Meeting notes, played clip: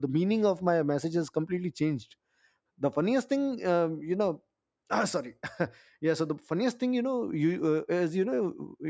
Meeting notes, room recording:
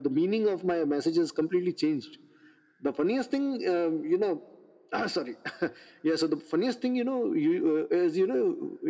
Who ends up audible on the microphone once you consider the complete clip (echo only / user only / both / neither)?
echo only